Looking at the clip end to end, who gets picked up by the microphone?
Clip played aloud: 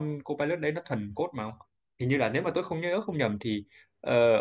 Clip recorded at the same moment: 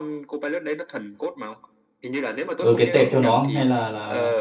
both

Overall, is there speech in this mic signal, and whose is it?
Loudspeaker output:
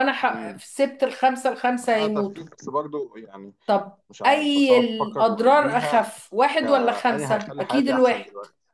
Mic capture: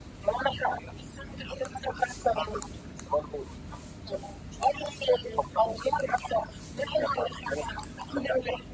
echo only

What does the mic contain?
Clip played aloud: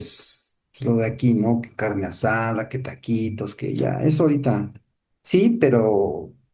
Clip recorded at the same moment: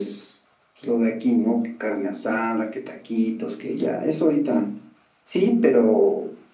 echo only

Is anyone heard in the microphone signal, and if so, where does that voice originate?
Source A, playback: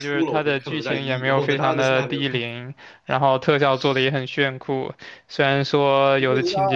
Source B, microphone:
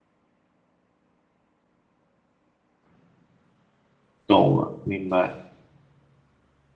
user only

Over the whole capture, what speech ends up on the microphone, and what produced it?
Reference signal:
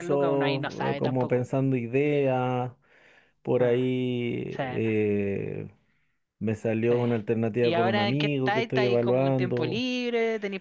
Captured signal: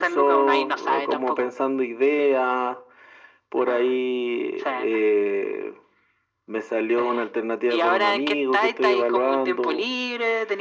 echo only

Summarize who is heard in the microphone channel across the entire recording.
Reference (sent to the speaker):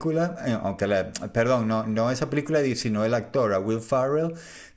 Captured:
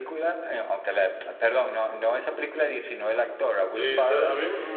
both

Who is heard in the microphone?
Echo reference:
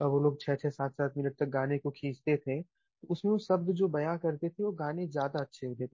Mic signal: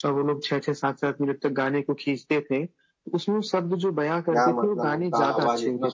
both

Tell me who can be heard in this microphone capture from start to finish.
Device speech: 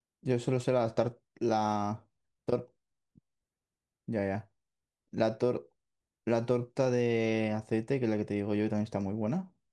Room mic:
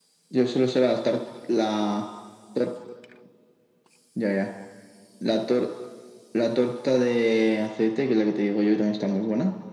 echo only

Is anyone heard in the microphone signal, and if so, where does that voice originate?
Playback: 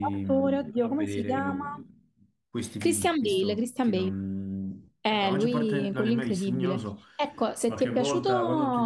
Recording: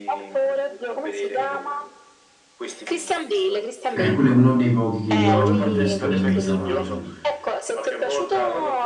both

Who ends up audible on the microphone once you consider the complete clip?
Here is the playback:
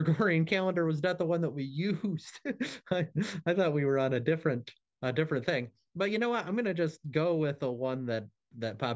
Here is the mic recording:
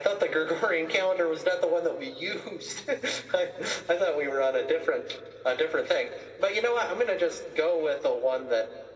echo only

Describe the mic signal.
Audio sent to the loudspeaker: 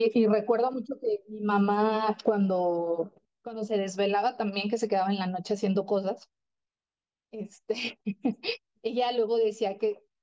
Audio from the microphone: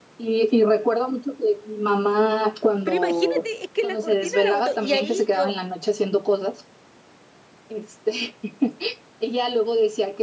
both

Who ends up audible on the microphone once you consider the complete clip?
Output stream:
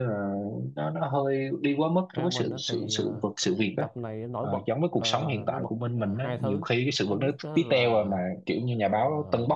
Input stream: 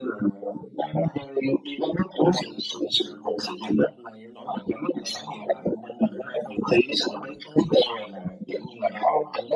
echo only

